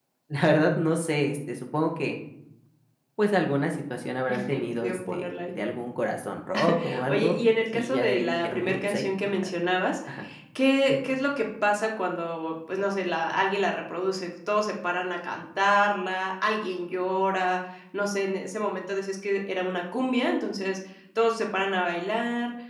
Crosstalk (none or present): present